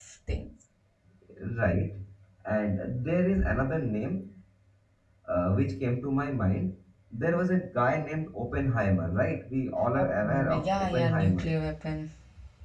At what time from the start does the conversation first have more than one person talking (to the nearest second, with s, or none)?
10 s